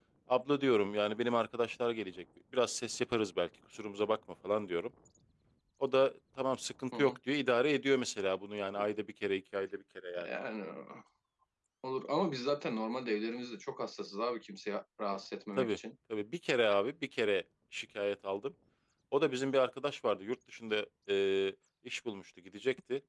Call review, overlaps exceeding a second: none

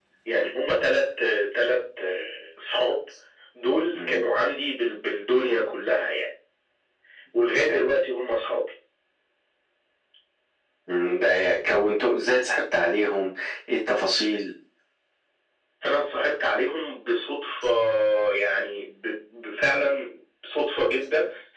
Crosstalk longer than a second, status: none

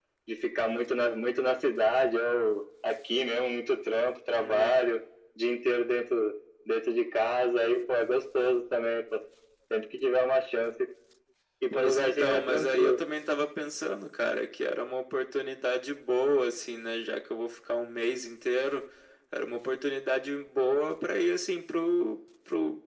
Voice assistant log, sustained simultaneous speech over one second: present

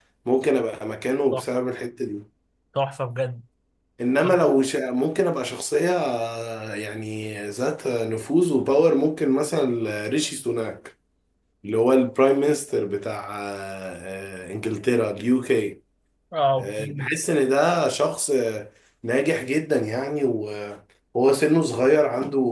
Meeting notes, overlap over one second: none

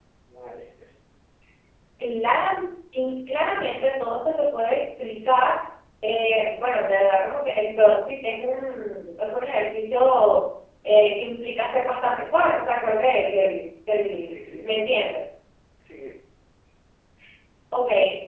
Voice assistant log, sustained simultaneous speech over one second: none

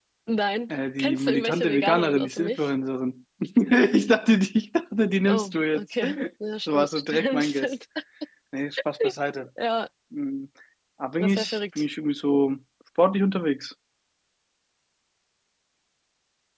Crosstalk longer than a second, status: present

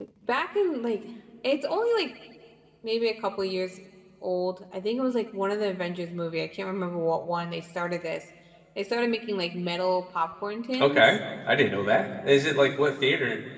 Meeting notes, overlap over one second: none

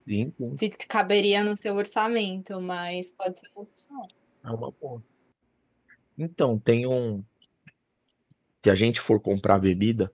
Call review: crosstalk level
none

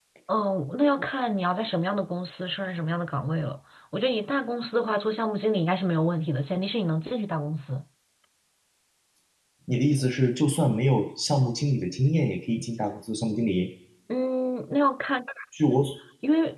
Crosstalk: none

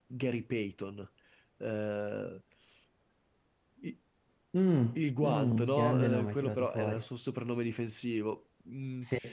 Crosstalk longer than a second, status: present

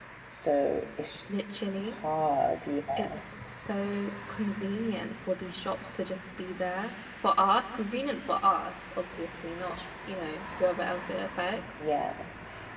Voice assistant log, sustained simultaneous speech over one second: none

